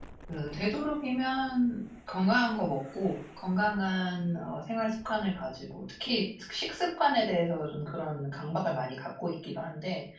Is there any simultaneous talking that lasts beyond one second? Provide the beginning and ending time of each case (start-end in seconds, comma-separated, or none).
none